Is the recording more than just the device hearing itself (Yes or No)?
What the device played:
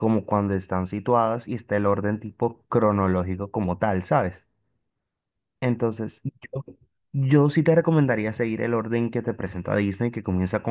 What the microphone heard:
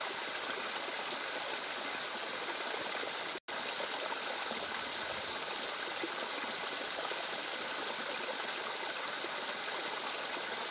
No